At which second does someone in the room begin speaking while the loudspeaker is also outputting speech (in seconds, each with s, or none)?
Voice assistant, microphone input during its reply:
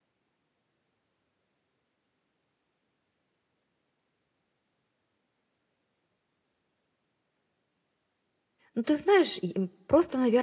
8.7 s